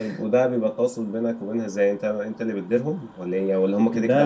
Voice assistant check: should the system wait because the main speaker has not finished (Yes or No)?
No